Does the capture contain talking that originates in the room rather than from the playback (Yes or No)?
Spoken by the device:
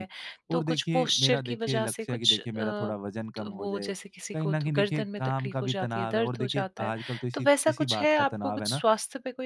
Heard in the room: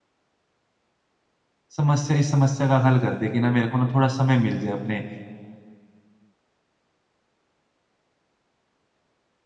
Yes